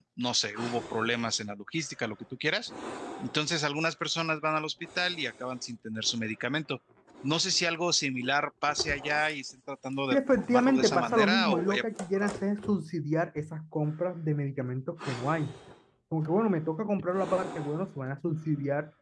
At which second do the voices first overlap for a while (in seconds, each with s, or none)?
10.1 s